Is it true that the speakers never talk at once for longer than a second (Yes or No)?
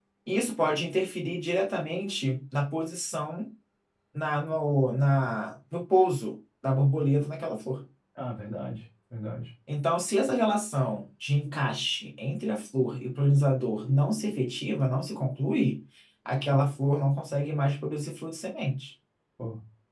Yes